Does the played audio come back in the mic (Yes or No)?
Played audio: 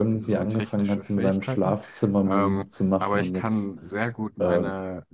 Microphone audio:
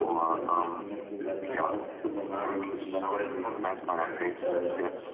Yes